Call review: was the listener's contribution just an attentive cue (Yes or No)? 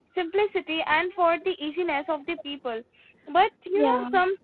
Yes